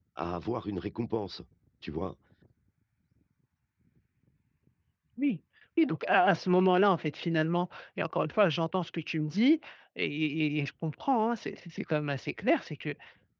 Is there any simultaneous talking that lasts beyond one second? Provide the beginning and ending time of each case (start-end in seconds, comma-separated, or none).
none